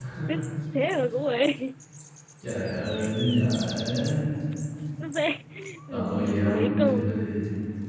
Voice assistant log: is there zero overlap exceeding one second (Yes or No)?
No